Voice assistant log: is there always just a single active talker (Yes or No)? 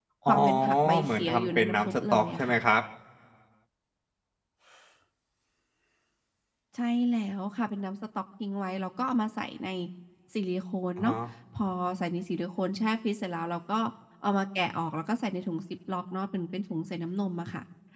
No